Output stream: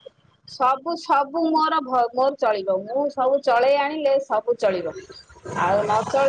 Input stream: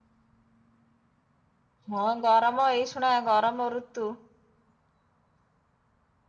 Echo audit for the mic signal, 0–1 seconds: neither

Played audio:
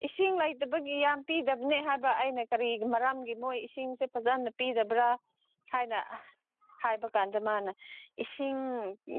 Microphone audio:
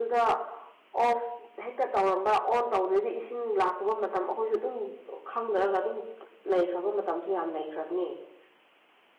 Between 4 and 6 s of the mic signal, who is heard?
user only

